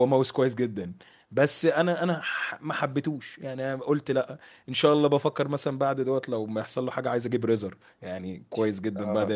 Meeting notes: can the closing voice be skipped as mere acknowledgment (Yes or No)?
No